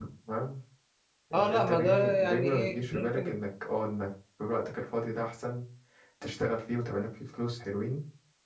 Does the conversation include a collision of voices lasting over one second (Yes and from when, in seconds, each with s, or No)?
Yes, from 1.3 s